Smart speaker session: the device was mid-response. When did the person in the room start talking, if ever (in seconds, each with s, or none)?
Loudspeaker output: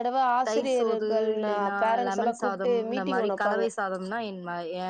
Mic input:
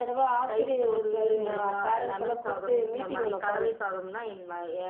1.4 s